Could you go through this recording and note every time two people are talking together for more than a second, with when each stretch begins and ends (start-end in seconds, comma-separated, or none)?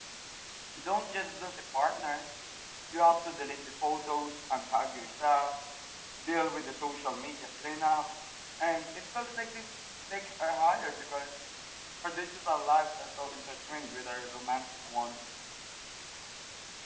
none